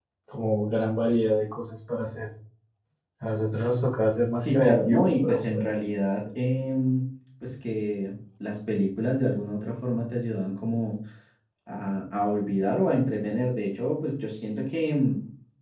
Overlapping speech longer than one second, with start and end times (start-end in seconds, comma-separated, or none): 4.4-5.6